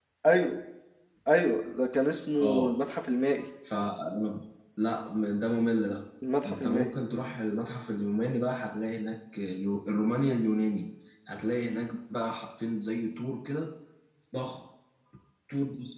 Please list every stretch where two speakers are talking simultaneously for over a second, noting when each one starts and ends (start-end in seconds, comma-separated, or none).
none